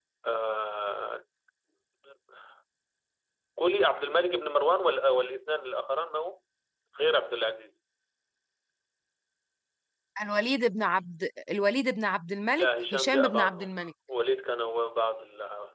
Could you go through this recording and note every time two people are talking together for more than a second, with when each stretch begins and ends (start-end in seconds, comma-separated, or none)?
12.6-13.8